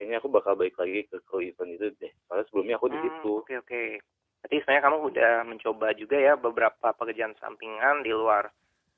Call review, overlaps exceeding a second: none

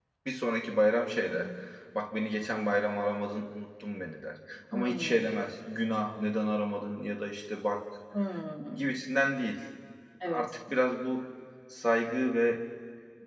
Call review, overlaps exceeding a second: none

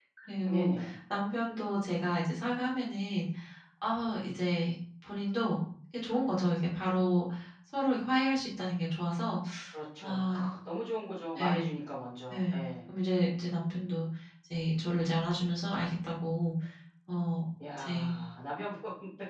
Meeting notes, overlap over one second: none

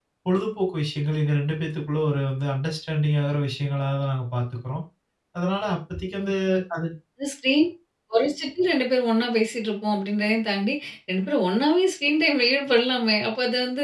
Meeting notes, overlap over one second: none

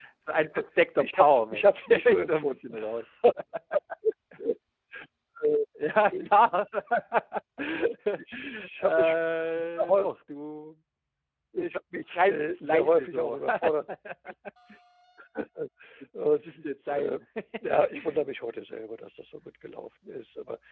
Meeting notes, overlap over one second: present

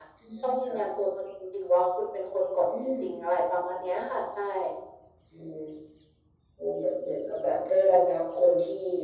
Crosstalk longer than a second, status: none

